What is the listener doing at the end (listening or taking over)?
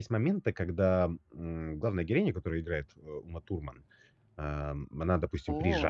listening